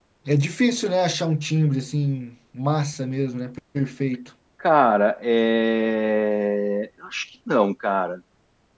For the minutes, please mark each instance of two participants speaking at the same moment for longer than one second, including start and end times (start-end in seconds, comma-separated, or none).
none